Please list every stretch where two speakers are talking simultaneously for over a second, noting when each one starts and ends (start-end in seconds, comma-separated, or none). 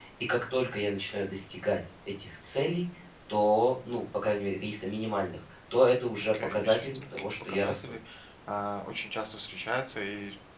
6.2-7.9